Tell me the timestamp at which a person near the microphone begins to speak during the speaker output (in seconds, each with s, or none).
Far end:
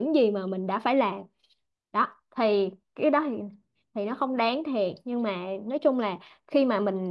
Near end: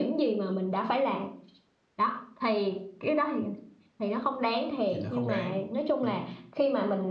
4.9 s